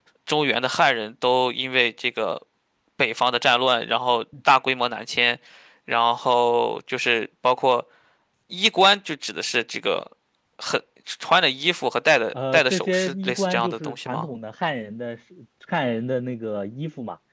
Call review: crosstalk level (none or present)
present